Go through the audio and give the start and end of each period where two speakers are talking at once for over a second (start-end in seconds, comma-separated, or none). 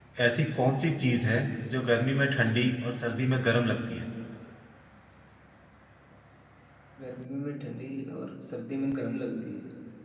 none